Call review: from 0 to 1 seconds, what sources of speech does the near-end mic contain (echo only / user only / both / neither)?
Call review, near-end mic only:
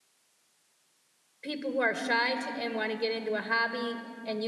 neither